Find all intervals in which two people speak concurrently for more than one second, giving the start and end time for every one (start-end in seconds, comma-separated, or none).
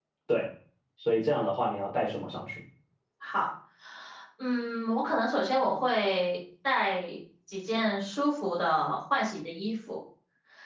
none